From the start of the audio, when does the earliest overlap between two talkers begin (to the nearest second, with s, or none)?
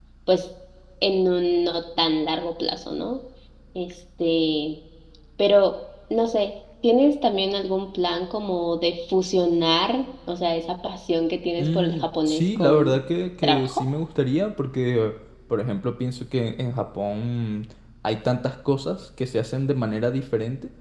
12 s